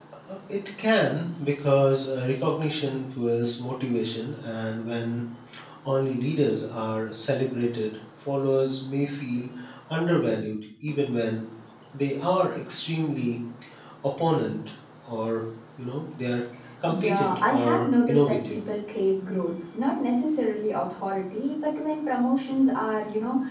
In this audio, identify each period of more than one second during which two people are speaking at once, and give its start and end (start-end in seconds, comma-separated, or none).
16.9-18.6